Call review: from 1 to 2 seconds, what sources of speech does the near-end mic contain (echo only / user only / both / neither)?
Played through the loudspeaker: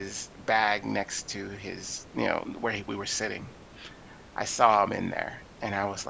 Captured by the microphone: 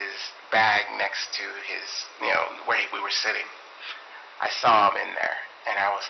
echo only